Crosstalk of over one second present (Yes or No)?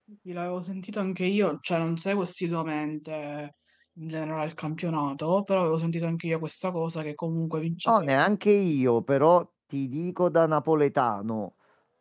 No